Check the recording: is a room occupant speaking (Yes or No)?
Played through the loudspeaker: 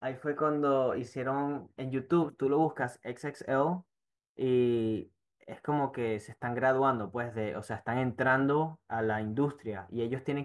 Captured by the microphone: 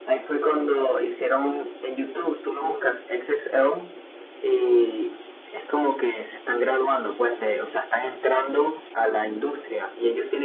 No